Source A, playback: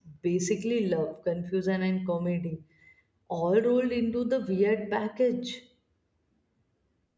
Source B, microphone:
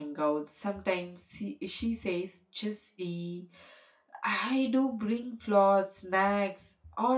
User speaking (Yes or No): Yes